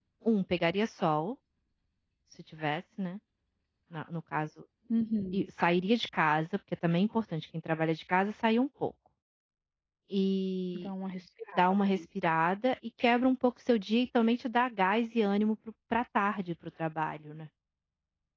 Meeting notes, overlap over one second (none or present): none